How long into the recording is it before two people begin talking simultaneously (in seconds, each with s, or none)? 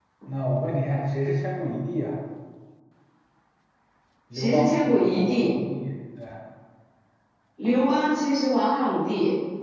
4.3 s